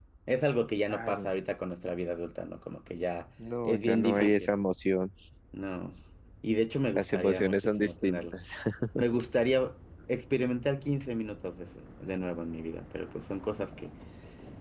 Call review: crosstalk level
present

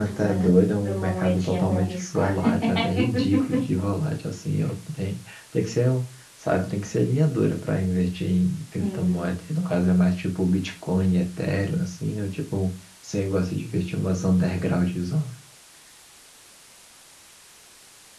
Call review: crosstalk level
present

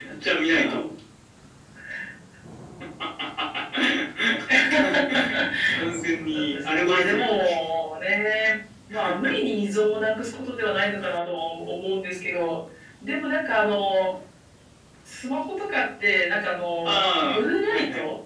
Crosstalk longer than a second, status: present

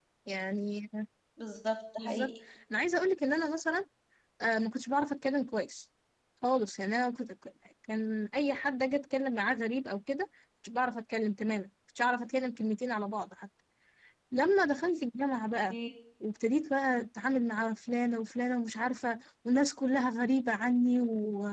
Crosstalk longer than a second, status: none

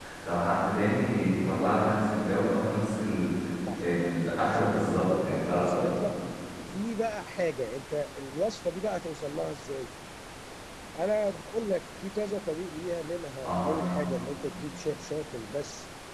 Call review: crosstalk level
present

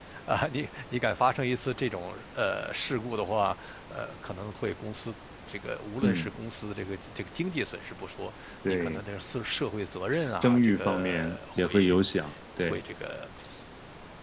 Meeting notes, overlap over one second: present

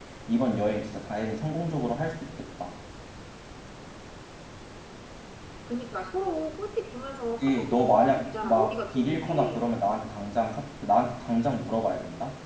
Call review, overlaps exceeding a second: present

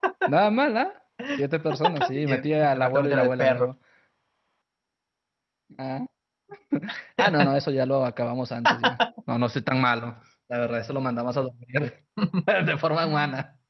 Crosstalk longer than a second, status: present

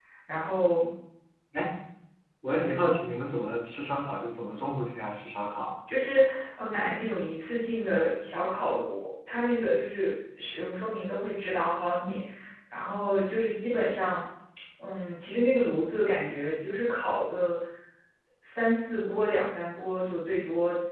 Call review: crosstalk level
none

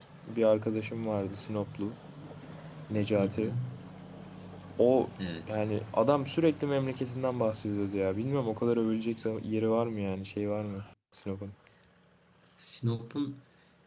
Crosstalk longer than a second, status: none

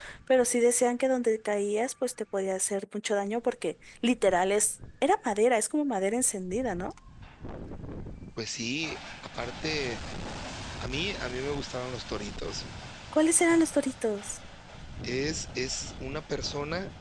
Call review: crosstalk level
none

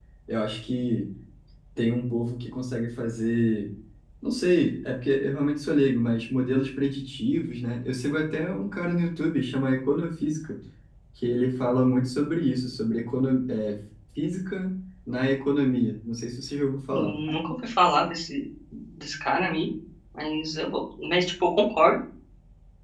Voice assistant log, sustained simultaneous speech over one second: none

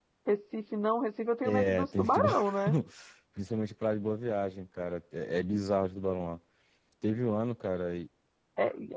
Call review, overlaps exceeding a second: present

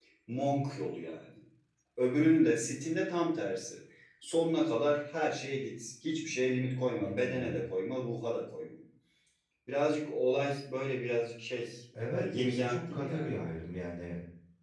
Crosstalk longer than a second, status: present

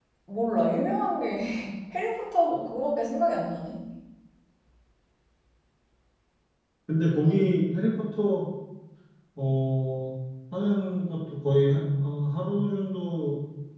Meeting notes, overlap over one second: none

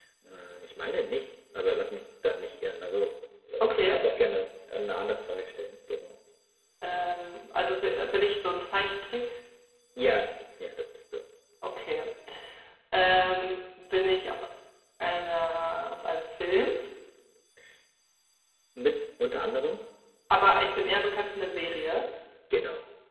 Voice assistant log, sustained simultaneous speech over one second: none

